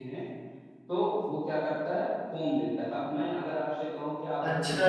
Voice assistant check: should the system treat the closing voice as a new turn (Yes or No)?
Yes